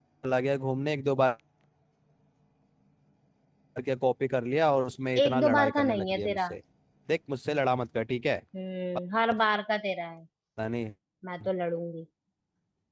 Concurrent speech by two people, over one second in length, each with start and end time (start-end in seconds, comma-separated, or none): 5.2-6.5